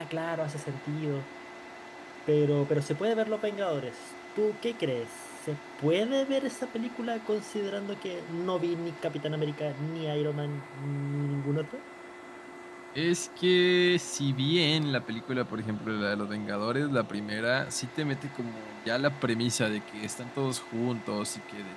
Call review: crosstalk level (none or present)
none